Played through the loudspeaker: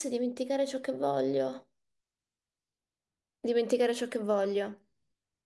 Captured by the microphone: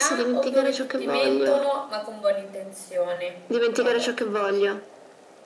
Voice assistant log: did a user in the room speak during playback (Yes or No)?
Yes